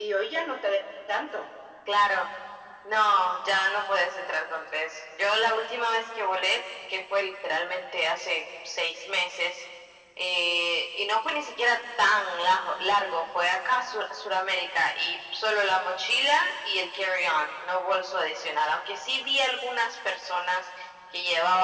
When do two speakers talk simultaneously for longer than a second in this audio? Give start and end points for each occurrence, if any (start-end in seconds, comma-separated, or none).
none